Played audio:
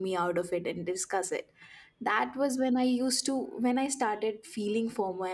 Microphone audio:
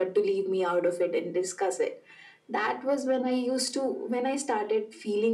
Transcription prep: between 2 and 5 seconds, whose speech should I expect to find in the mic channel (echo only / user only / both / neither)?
echo only